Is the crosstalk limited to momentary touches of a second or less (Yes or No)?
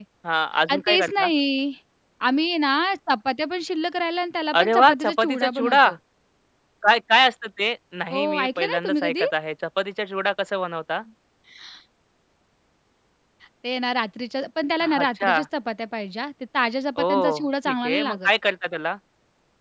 No